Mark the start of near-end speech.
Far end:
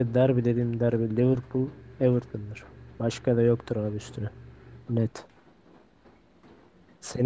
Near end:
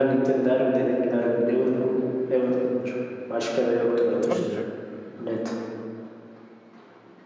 4.1 s

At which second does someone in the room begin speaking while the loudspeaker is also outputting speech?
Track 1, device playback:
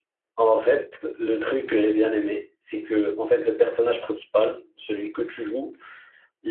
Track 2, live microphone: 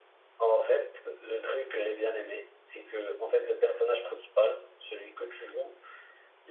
none

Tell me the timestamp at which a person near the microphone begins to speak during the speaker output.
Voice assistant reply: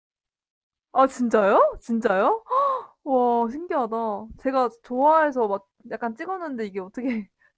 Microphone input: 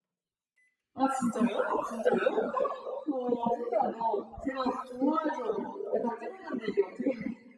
none

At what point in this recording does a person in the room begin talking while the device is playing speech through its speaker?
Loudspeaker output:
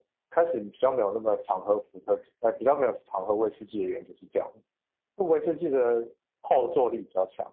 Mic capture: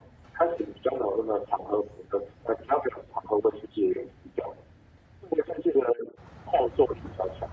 none

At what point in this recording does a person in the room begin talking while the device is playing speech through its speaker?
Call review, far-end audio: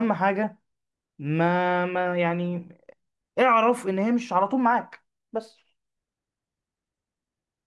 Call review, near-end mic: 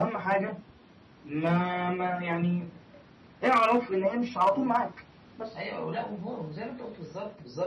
4.4 s

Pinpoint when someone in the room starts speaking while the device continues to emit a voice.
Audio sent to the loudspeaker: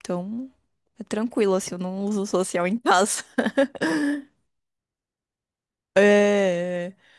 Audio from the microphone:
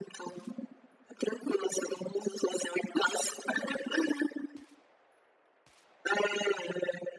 none

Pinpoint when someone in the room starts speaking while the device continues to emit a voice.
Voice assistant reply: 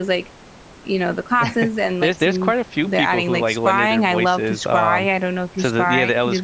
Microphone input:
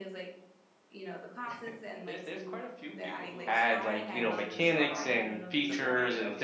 3.5 s

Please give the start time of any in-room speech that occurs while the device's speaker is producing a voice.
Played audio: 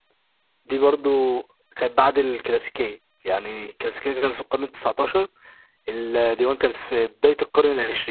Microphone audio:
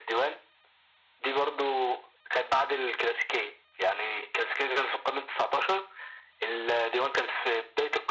none

